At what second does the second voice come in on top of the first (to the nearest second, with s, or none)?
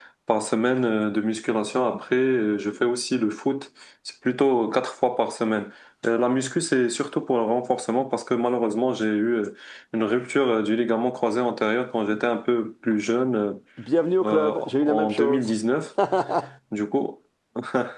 14 s